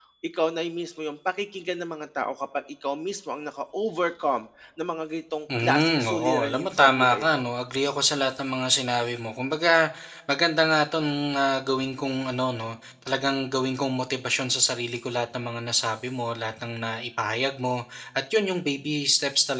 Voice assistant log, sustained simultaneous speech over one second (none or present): present